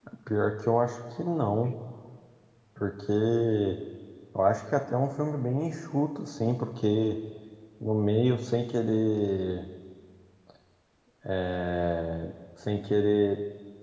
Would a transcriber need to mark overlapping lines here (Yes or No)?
No